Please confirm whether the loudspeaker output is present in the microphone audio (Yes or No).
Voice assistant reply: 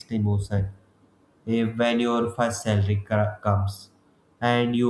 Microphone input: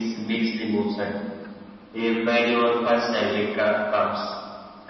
Yes